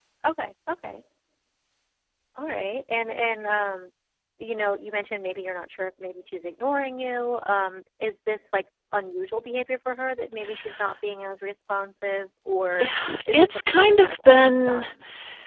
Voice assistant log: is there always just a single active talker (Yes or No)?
No